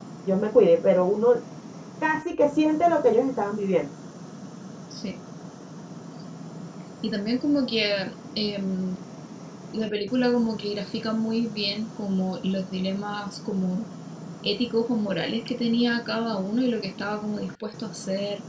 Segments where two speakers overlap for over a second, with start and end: none

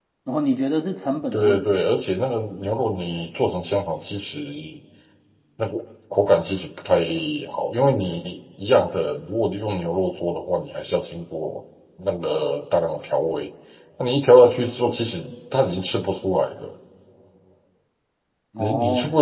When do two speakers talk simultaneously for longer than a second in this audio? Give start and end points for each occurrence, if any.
none

